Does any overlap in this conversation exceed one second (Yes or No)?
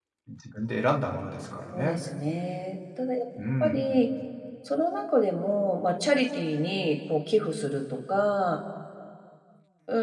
No